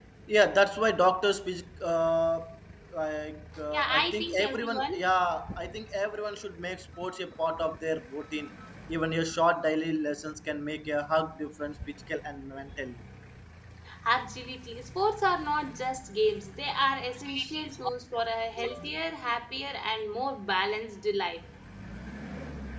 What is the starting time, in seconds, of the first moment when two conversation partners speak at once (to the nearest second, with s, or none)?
4 s